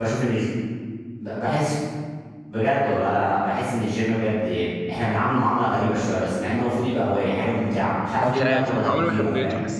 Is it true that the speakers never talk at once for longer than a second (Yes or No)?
No